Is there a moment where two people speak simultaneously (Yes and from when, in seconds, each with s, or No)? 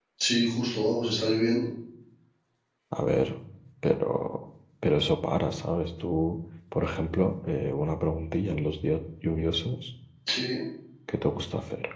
No